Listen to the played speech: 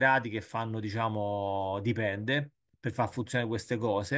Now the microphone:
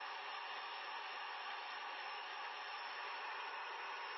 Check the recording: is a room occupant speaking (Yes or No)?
No